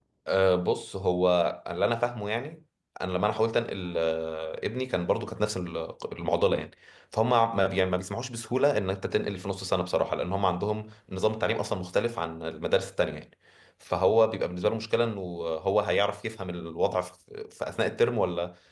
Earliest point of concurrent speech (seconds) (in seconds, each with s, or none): none